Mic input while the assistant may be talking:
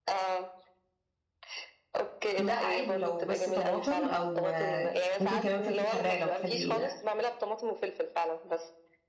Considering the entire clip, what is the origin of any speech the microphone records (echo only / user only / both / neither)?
both